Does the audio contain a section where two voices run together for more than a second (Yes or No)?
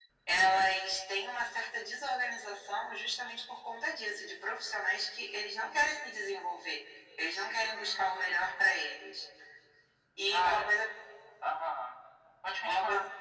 Yes